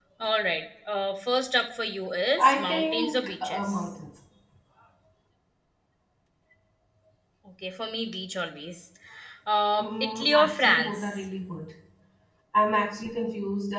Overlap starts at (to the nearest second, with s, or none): 2 s